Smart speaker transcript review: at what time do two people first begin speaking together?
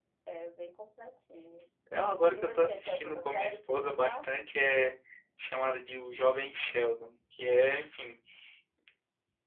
2.4 s

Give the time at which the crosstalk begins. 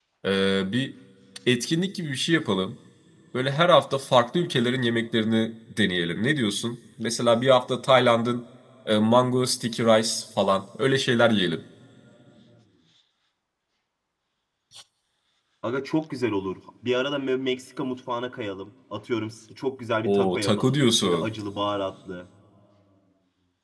20.0 s

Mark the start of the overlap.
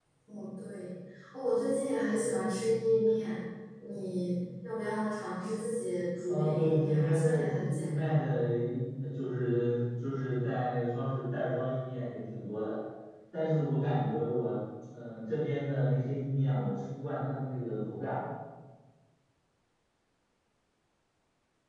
6.3 s

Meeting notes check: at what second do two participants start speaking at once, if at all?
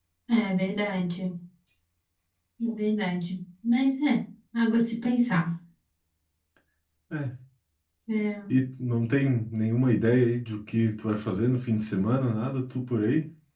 none

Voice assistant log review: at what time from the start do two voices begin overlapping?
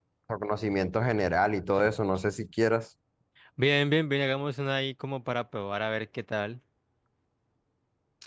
none

